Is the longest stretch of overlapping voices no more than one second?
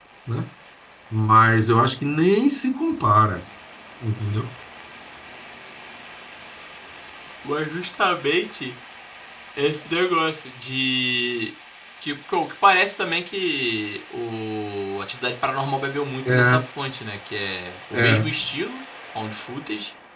Yes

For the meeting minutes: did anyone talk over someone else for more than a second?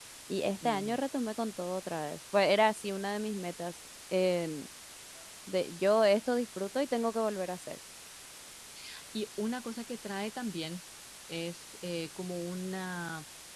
No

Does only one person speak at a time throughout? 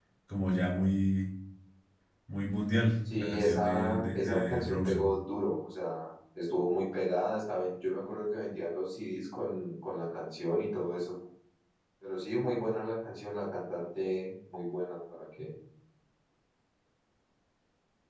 No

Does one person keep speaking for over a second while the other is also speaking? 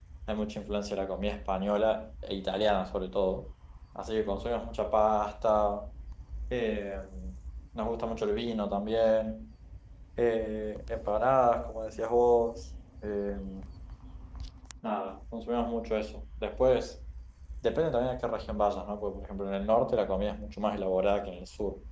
No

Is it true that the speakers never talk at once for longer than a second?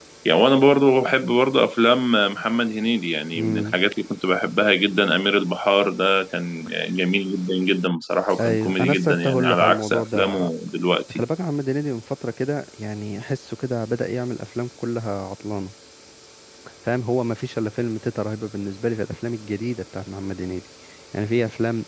No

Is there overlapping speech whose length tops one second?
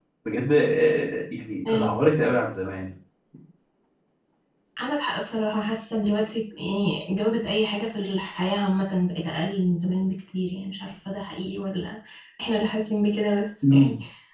No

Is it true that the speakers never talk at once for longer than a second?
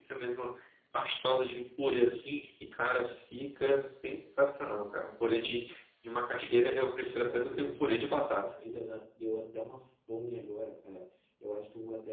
No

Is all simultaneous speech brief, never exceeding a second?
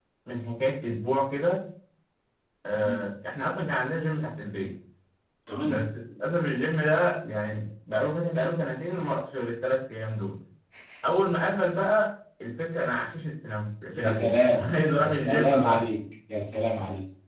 No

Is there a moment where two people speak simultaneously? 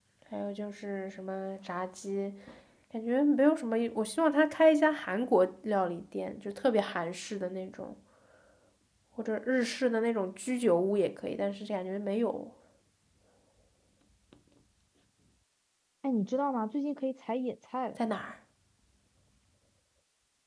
No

